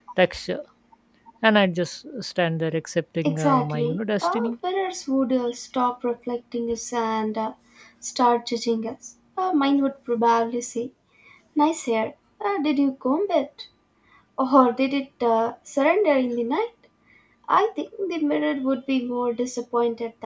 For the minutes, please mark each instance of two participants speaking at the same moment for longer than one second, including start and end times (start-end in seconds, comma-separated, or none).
3.2-4.5